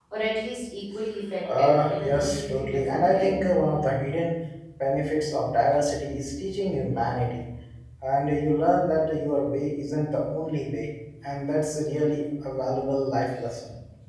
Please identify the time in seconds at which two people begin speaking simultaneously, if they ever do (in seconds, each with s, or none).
1.4 s